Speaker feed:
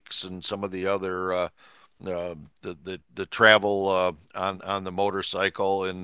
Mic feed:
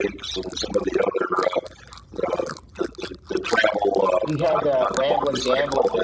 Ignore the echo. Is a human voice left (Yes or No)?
Yes